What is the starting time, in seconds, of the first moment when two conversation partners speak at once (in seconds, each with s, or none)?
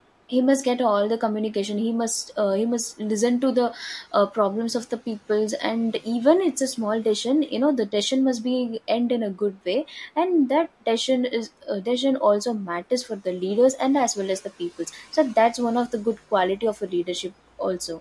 none